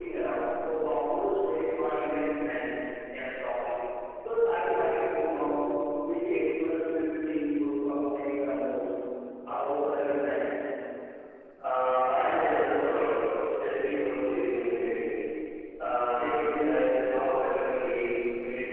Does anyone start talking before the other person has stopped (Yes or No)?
No